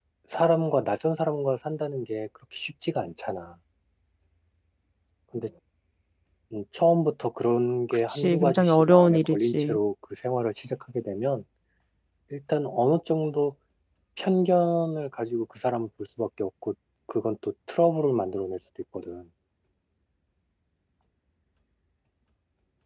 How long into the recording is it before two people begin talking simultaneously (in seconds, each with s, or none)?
7.9 s